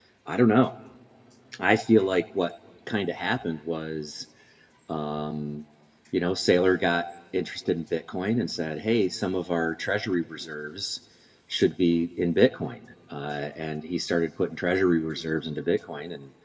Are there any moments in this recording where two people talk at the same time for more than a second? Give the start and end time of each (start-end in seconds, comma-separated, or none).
none